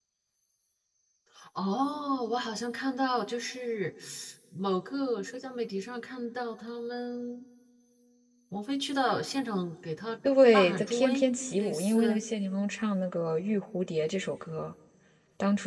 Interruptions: present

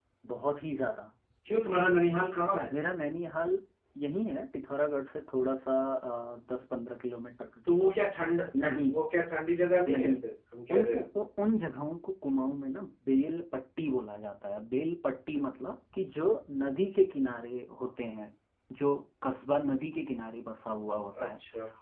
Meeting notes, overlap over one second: none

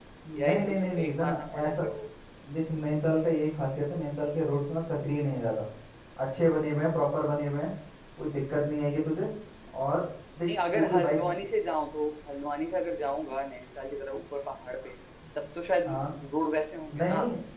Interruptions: present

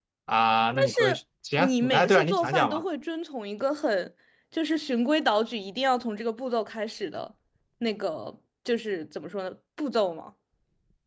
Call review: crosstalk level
present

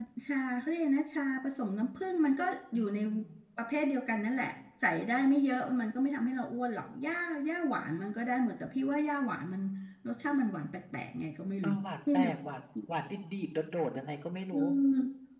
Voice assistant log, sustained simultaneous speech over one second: none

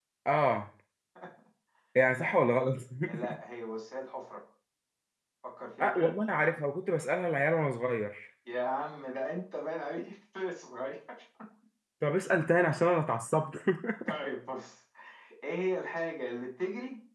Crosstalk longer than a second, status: none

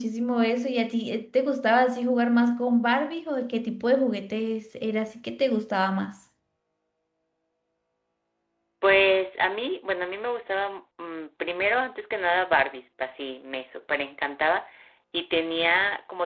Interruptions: none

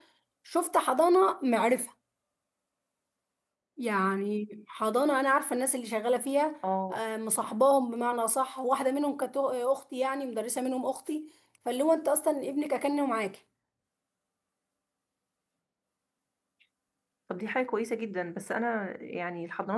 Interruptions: none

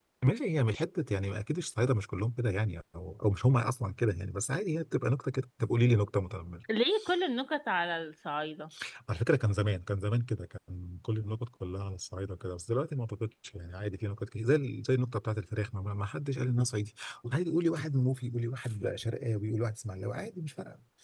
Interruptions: none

